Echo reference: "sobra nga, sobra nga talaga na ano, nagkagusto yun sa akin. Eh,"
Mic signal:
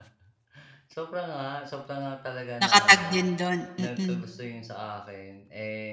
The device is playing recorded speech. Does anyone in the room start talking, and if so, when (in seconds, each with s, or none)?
2.6 s